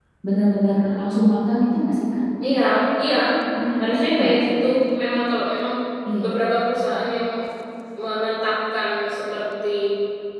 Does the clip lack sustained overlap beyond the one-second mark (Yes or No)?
Yes